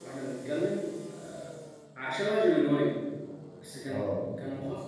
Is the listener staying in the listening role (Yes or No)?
Yes